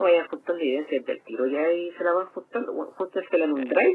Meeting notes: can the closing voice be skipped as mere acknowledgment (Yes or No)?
Yes